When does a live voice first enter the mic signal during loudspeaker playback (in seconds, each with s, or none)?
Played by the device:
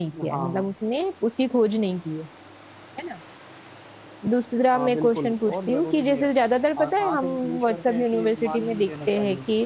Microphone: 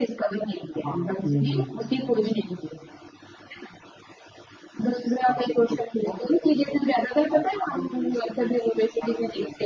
1.2 s